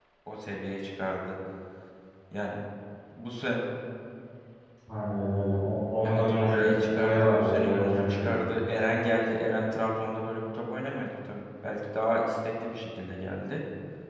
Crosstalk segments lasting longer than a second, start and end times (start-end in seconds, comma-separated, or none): 6.0-8.4